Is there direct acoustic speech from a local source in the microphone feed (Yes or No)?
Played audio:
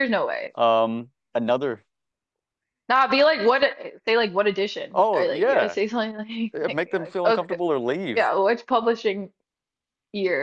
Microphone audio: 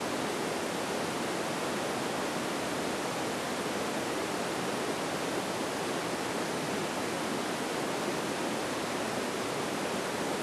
No